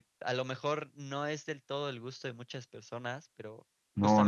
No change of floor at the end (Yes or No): No